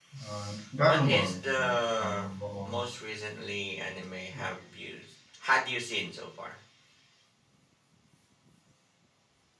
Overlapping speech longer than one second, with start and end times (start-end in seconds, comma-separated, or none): 0.8-2.3